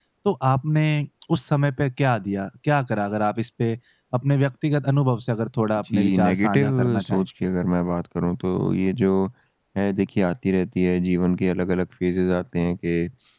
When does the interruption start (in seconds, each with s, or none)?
5.9 s